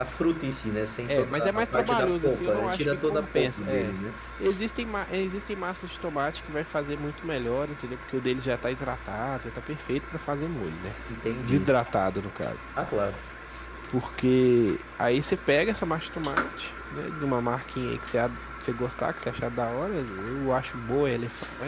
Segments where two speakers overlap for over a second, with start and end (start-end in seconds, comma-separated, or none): 1.1-4.0